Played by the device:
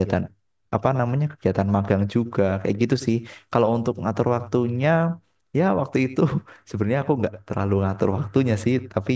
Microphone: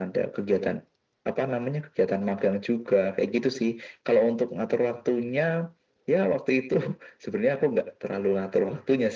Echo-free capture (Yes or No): No